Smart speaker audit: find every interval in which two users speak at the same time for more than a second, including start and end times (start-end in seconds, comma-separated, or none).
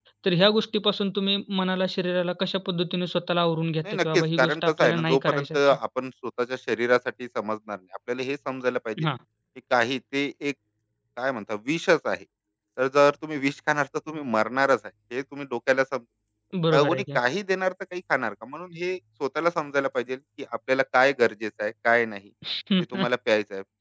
3.8-5.8